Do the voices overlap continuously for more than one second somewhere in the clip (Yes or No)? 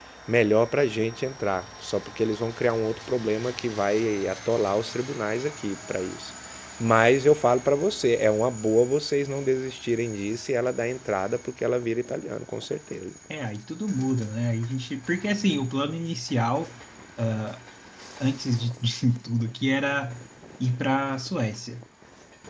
No